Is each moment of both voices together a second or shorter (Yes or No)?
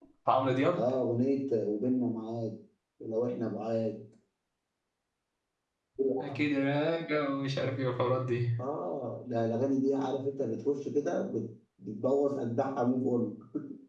Yes